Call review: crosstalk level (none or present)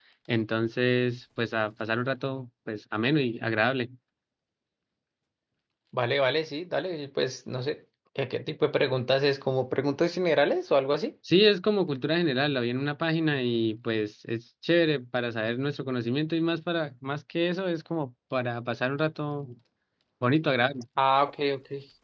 none